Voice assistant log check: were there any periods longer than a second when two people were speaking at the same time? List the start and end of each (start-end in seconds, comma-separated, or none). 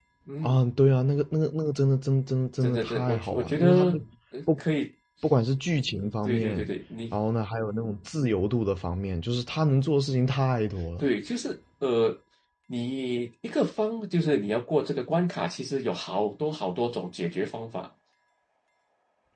2.6-4.0